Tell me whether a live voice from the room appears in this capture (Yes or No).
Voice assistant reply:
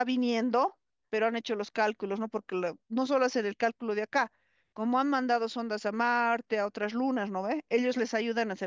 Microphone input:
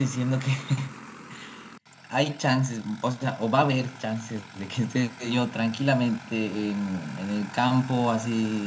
Yes